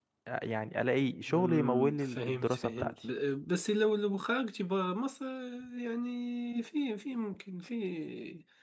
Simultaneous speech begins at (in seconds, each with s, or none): 1.3 s